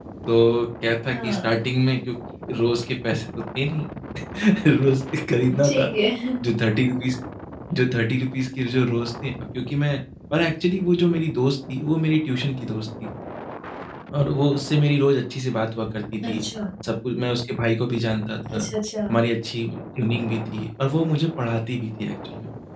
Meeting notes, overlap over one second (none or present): none